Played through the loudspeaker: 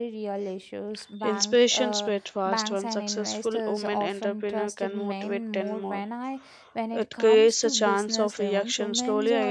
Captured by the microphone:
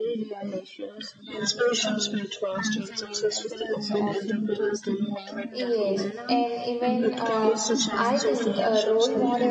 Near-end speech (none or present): present